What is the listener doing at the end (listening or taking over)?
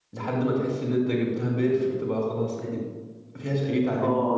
taking over